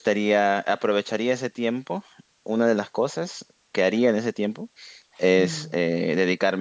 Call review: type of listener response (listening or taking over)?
listening